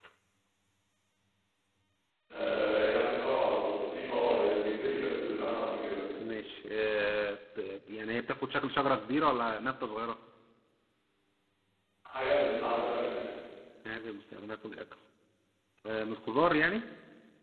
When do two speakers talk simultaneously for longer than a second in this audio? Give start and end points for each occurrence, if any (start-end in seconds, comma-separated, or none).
none